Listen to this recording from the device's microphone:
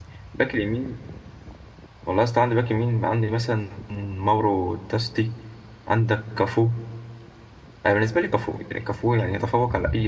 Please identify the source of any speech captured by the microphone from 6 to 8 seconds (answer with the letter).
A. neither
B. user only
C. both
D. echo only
B